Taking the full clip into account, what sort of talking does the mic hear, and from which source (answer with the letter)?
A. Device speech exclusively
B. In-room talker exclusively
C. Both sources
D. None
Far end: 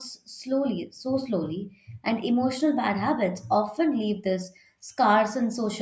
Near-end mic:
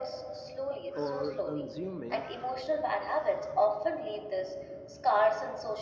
C